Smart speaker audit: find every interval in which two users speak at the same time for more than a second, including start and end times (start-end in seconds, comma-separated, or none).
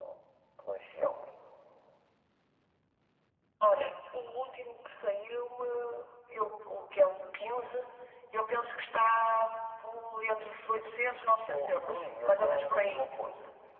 11.5-13.1